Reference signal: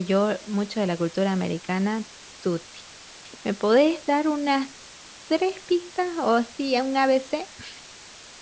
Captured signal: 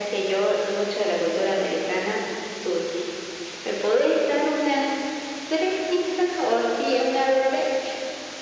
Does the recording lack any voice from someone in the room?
Yes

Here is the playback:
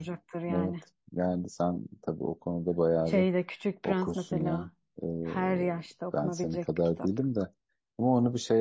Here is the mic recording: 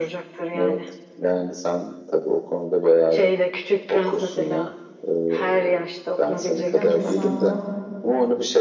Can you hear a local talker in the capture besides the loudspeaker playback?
Yes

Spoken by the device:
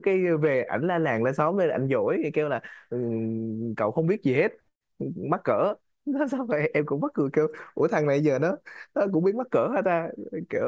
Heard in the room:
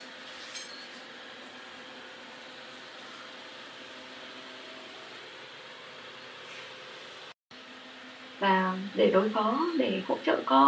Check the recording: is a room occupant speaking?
Yes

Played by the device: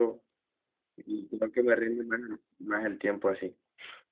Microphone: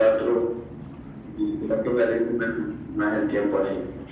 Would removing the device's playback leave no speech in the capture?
Yes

